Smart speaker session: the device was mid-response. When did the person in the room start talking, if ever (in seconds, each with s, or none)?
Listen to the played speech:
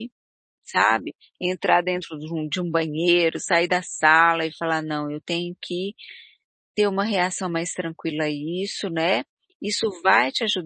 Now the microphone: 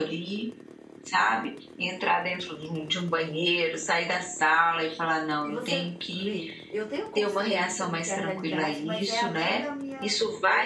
5.4 s